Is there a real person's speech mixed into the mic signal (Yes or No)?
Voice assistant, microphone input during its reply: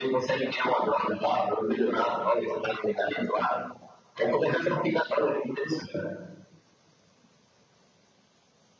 No